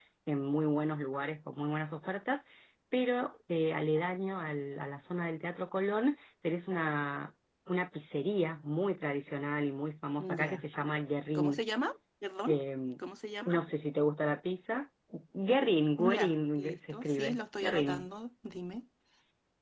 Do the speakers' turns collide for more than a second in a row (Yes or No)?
Yes